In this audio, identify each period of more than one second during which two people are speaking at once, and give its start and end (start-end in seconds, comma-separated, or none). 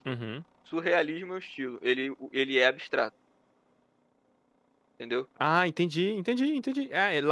none